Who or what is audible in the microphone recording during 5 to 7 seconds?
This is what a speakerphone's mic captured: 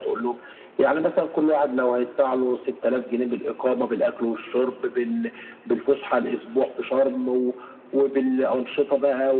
echo only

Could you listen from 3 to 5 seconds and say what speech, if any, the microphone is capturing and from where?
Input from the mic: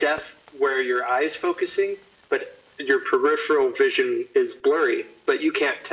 echo only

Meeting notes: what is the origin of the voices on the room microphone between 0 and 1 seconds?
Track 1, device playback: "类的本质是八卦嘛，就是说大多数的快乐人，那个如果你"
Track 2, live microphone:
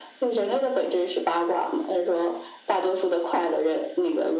echo only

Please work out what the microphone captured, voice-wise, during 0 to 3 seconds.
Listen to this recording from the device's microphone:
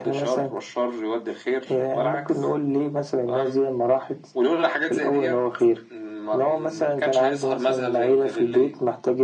echo only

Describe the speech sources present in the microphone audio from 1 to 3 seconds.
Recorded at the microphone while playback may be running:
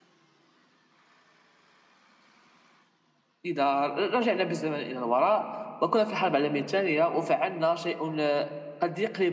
neither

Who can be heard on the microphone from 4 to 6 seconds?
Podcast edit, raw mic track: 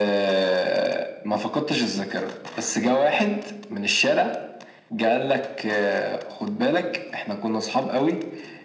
echo only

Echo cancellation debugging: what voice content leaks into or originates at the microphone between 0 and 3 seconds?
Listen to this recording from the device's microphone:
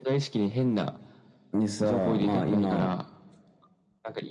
echo only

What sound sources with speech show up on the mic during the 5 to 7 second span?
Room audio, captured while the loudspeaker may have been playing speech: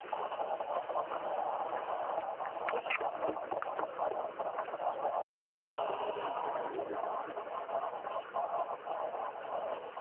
neither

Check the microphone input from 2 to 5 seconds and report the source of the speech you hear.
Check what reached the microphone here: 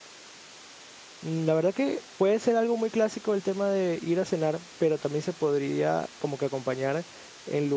user only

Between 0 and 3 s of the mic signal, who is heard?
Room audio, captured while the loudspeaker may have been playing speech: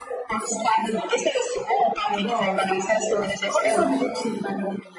both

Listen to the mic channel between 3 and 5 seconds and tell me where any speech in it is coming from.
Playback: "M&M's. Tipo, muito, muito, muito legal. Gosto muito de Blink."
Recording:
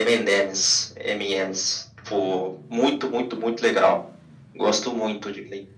echo only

